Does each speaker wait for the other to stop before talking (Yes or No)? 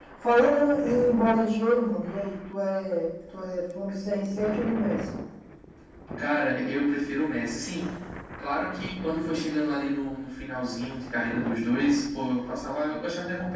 Yes